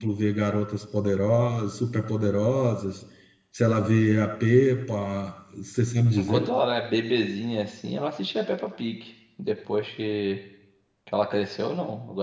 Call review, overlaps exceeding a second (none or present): none